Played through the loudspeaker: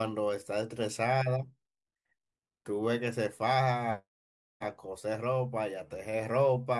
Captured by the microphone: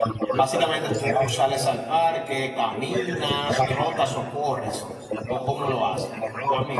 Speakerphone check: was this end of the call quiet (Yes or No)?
No